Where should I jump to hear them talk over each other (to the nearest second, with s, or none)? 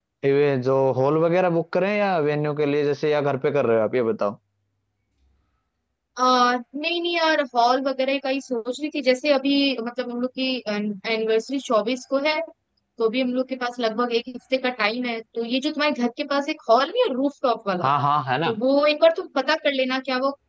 none